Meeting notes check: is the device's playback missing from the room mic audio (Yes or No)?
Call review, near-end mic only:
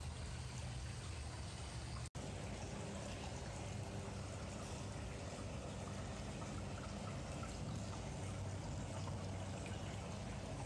Yes